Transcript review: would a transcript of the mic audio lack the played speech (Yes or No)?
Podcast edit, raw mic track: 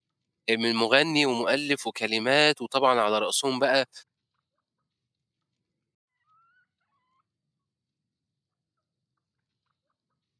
Yes